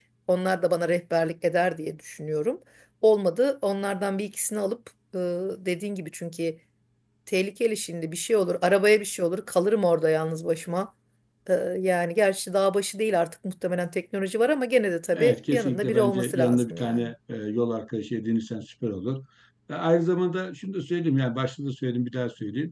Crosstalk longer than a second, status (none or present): present